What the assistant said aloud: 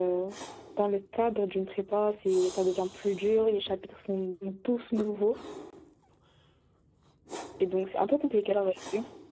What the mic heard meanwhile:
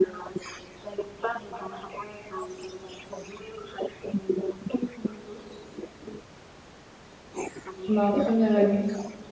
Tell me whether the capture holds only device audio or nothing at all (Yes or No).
No